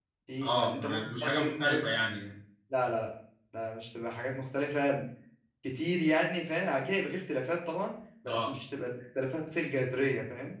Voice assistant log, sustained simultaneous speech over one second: present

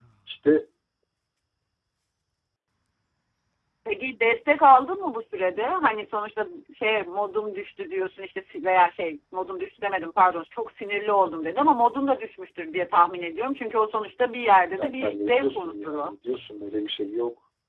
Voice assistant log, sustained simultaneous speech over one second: present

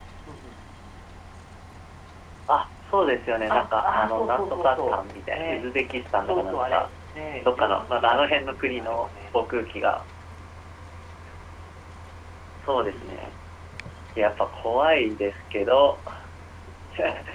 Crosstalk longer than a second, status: present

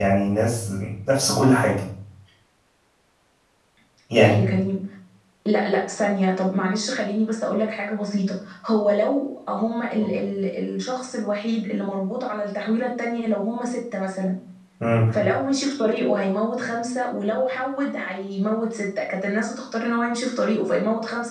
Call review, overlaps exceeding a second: none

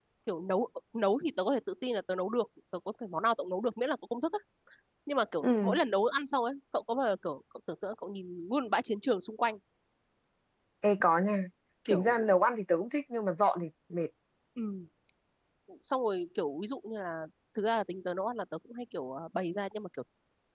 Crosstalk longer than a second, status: none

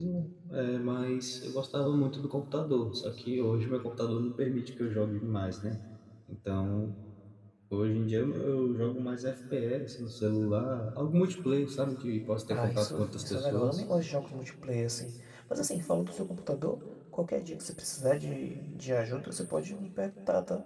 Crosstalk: present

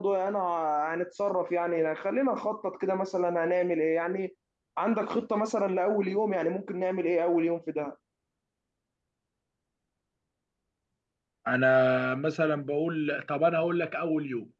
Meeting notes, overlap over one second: none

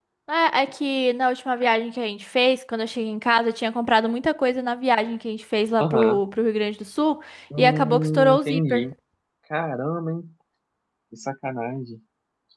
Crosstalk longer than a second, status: present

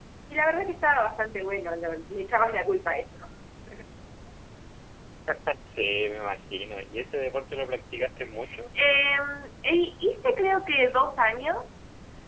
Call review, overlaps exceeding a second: none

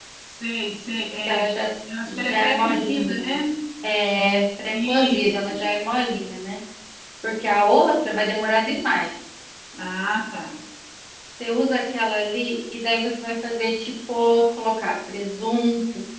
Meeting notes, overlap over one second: present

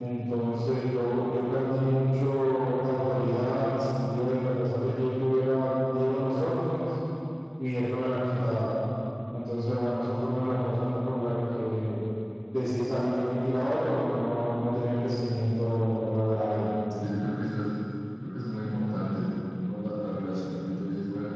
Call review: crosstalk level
none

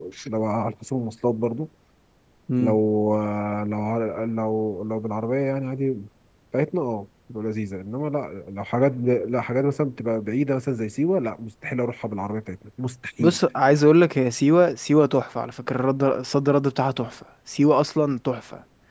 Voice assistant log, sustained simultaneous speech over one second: none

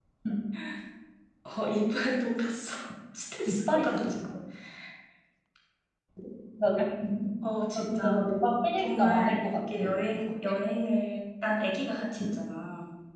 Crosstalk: present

